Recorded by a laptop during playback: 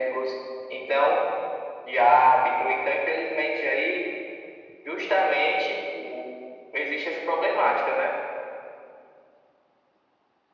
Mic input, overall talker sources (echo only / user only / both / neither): echo only